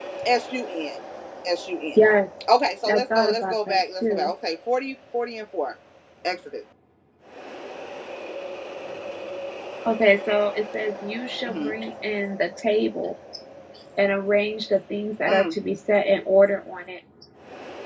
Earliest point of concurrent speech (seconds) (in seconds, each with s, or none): 2.9 s